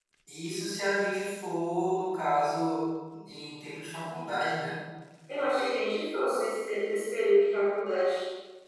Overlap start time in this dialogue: none

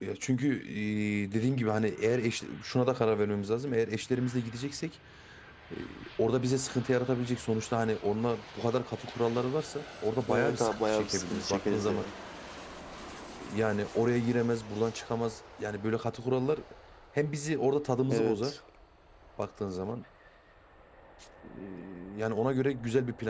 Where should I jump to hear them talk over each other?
10.3 s

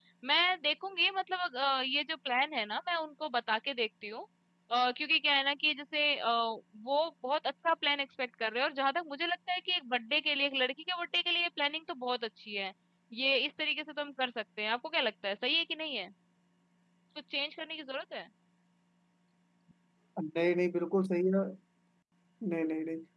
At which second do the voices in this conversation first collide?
none

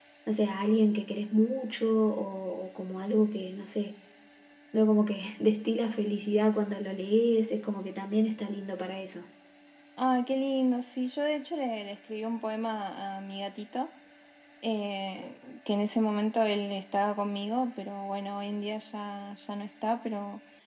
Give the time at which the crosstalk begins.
none

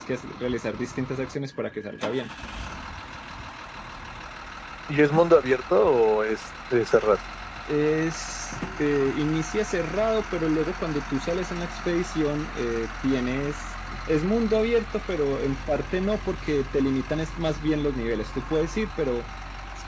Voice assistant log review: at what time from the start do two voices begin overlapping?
none

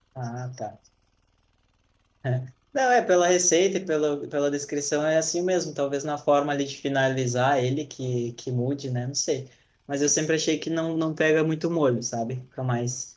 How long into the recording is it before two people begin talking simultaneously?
none

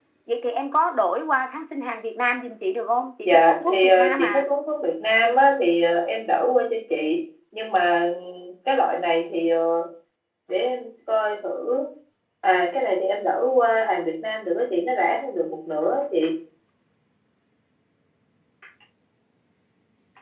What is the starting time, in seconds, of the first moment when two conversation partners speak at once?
3.2 s

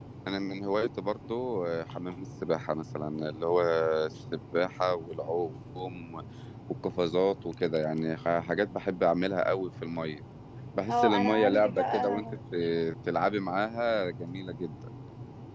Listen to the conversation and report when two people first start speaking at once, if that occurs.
10.9 s

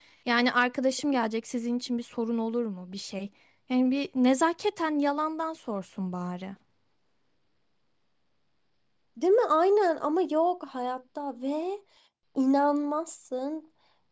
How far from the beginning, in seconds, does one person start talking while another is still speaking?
none

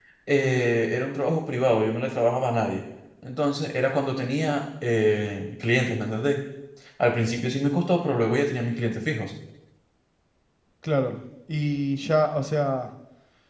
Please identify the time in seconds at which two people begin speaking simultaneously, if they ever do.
none

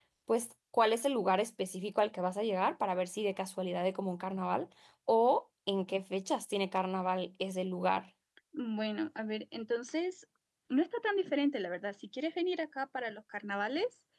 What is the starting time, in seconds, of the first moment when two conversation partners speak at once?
none

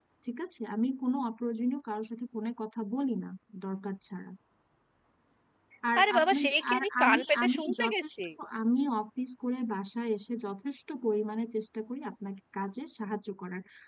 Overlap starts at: 6.0 s

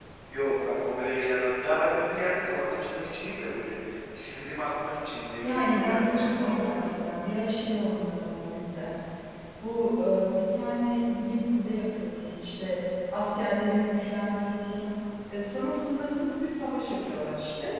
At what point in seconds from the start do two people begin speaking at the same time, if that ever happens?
5.4 s

